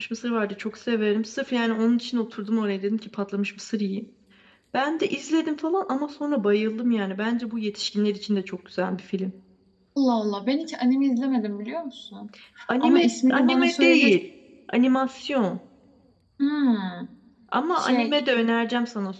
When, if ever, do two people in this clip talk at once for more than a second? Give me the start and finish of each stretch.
12.8-14.1

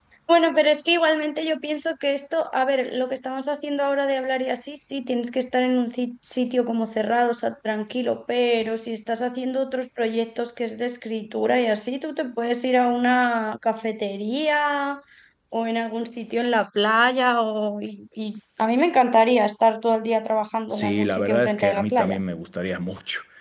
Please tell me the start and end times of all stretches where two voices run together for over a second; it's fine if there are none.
20.7-22.2

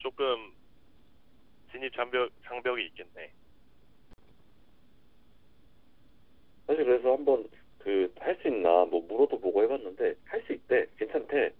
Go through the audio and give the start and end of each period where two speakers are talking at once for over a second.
none

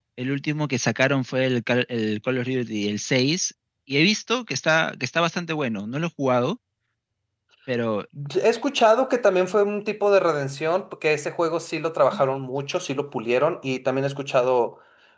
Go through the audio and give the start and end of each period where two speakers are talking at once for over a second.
none

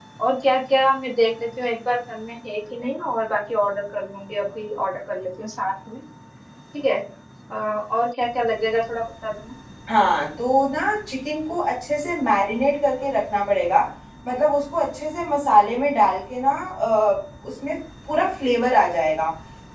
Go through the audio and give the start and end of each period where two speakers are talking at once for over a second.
none

